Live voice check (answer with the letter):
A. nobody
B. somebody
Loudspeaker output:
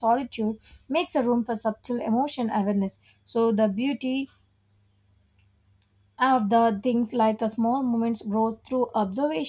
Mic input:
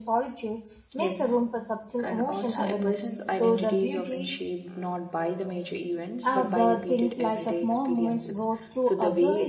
B